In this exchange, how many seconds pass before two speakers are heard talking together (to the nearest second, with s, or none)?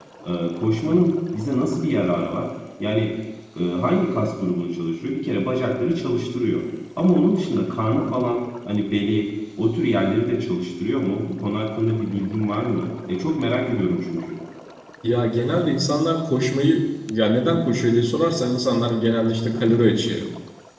none